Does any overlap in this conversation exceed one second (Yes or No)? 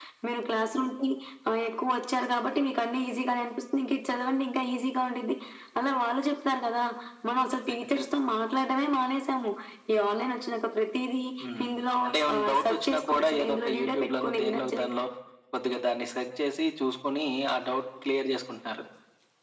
Yes